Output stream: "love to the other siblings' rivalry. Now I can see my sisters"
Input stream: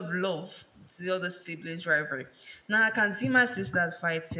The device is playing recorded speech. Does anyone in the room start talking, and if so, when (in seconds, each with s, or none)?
none